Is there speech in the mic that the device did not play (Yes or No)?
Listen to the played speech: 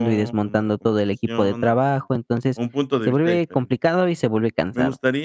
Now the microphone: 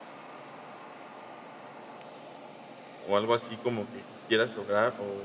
Yes